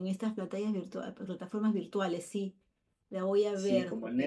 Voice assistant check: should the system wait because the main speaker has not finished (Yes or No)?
No